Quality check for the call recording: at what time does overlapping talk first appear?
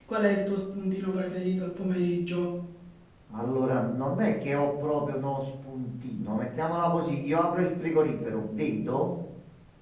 none

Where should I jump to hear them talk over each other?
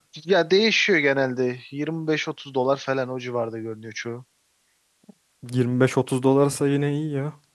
none

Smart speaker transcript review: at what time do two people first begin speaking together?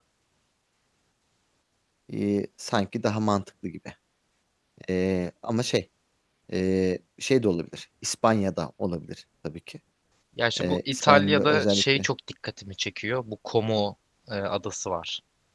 10.6 s

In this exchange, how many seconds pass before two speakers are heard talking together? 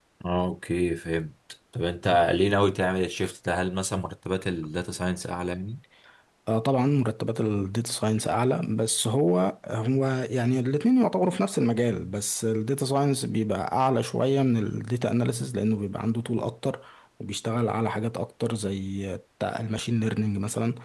none

